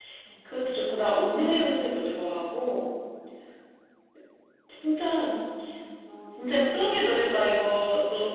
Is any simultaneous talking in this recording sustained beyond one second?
Yes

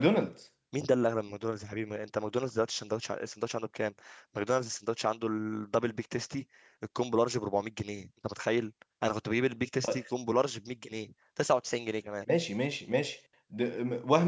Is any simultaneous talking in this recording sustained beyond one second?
No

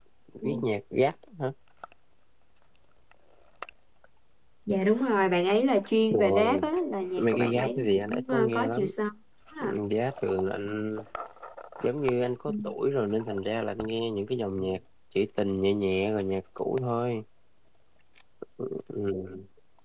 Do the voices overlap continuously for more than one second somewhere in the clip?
Yes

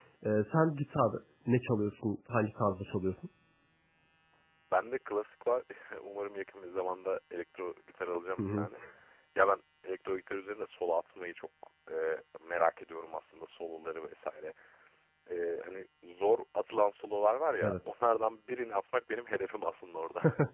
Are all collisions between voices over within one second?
Yes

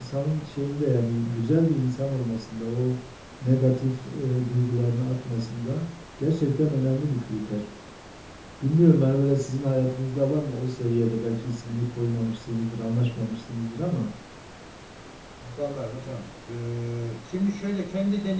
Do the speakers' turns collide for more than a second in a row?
No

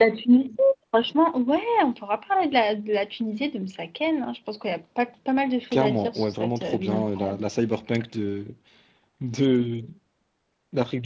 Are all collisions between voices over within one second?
No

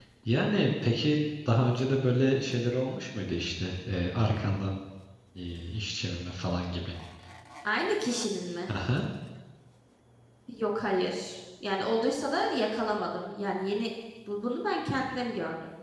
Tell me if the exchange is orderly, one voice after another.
Yes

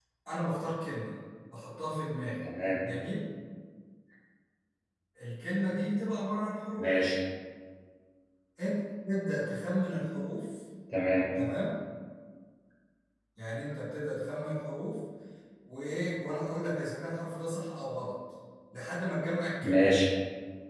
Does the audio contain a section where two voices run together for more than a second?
No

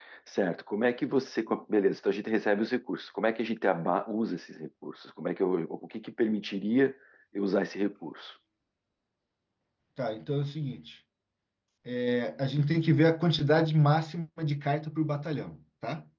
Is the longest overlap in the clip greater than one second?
No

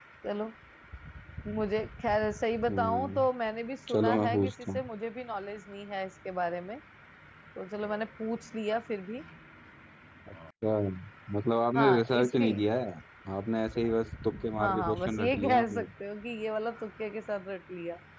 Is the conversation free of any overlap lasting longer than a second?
No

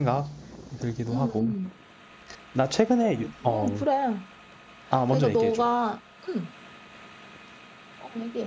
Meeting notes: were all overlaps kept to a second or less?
Yes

